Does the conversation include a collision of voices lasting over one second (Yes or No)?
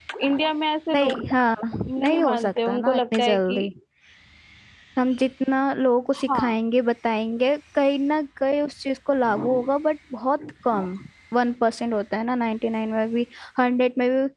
Yes